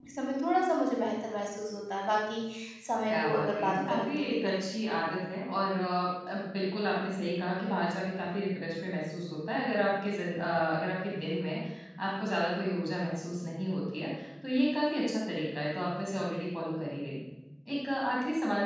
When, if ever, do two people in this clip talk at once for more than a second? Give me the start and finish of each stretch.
3.1-4.8

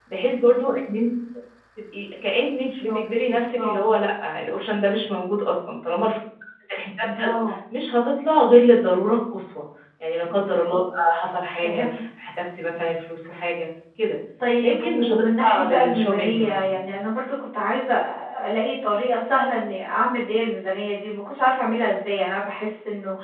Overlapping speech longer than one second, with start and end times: 2.6-3.9, 14.6-16.8

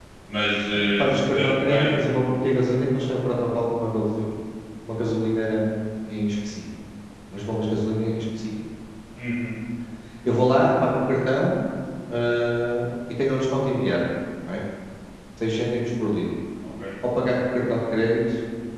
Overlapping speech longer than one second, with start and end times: 1.0-2.4

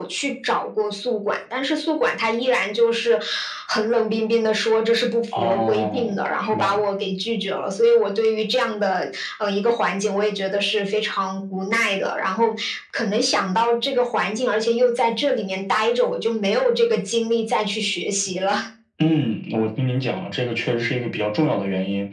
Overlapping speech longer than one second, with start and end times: 5.3-6.8

